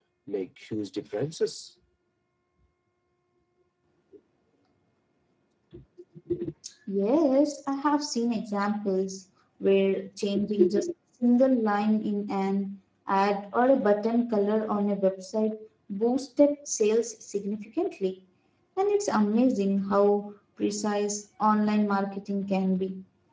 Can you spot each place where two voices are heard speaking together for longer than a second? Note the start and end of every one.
none

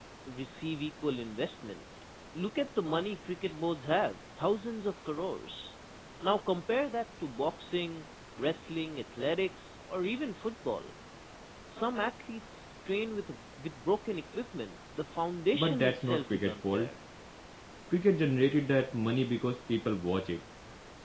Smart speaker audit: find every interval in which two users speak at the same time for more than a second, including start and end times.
15.5-16.9

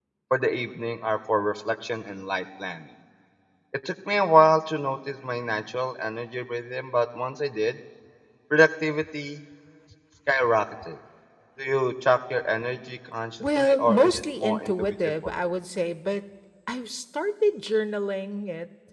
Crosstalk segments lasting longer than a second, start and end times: 13.4-15.4

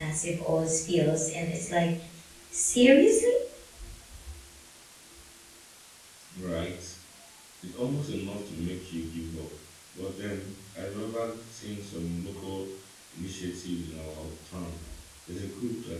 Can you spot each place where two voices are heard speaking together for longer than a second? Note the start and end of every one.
none

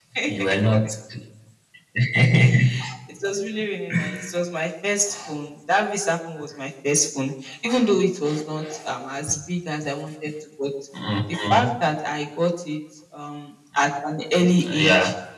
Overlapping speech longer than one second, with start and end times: none

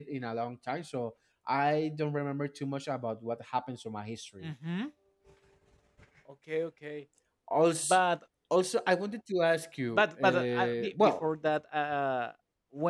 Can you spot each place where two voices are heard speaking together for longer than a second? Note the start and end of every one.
9.9-11.2

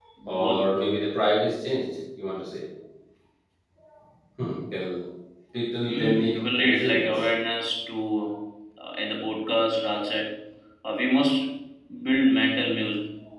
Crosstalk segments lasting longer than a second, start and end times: 5.8-7.2

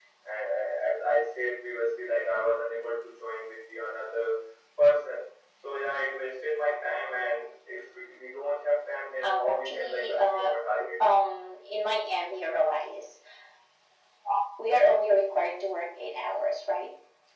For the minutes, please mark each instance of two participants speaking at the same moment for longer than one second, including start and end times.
9.2-10.5

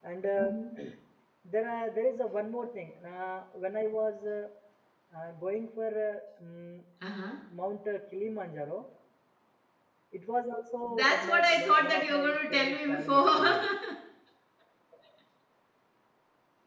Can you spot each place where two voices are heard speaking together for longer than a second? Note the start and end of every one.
10.9-13.6

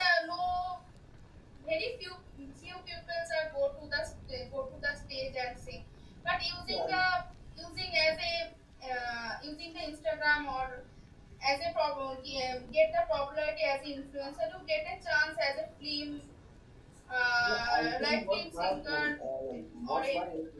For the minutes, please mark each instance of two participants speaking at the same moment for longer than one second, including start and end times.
17.4-19.1

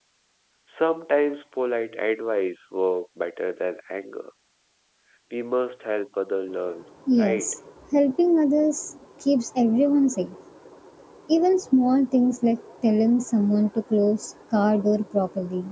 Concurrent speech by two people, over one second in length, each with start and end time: none

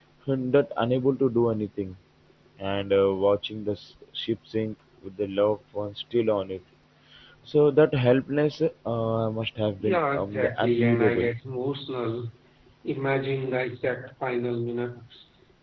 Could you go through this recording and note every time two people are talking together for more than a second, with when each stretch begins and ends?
9.8-11.3

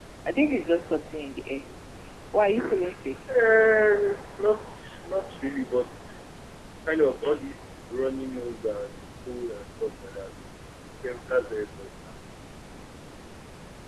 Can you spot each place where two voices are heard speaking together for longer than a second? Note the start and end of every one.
none

